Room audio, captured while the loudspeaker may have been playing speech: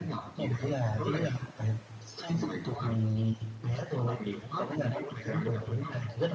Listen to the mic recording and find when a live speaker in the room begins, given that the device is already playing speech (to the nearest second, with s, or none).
none